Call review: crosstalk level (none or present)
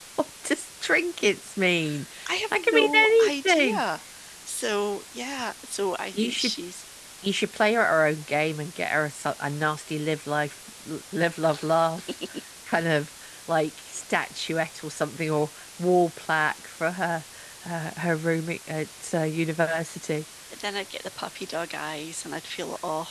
present